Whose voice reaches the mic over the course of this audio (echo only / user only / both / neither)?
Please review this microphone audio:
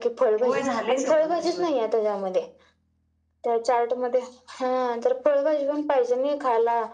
both